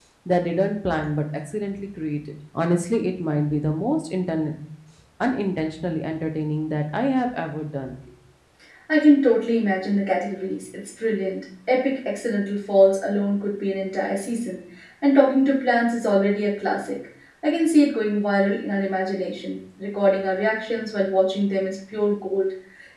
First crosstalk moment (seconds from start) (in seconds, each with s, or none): none